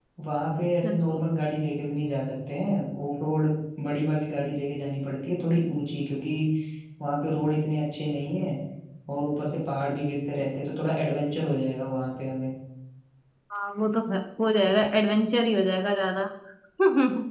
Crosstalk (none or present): none